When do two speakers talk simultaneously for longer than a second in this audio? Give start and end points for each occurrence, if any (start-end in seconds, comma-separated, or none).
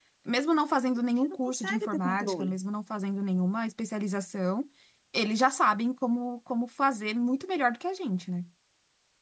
1.2-2.6